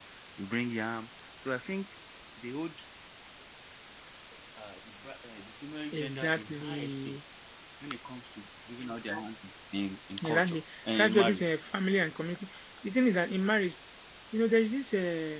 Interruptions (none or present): present